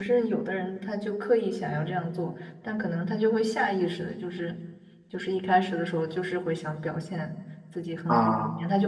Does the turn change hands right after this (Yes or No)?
No